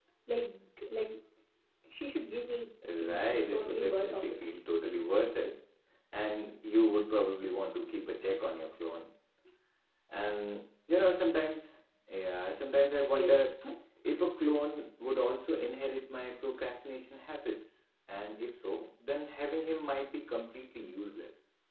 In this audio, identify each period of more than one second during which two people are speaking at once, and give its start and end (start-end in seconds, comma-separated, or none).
3.0-4.3